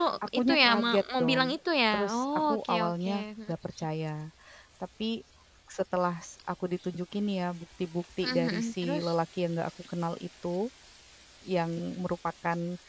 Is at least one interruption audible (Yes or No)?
Yes